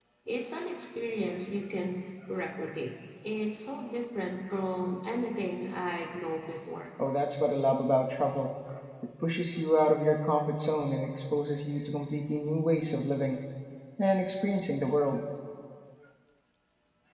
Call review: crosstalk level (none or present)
none